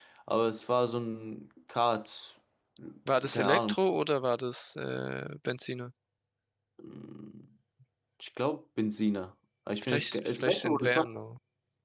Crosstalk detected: Yes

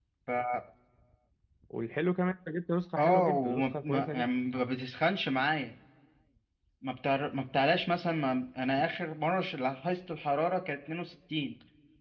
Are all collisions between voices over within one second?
No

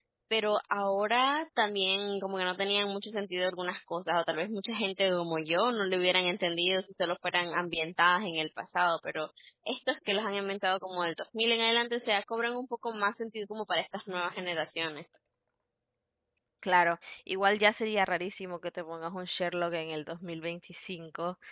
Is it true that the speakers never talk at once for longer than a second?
Yes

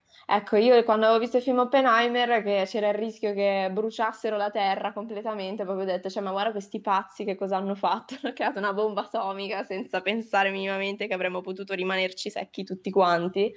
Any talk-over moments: No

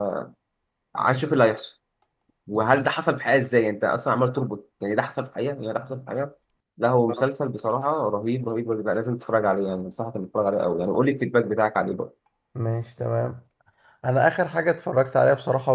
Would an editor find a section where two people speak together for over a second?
No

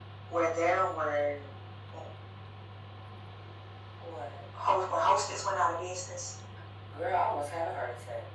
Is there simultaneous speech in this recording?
No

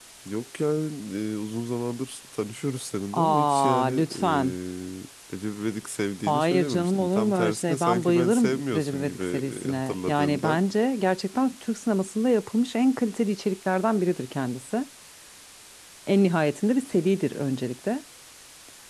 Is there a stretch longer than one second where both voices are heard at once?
Yes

